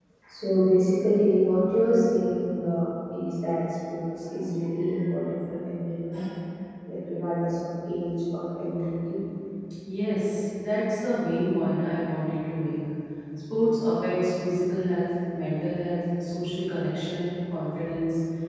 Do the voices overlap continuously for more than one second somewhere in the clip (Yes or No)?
No